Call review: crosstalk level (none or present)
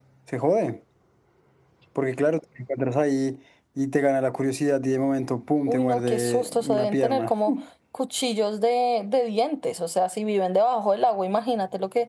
present